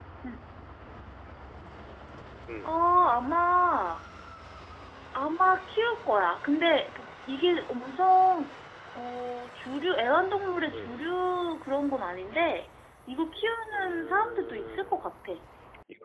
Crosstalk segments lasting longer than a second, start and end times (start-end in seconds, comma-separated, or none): 13.7-15.0